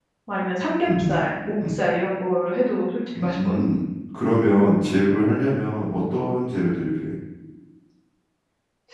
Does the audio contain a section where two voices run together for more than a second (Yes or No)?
No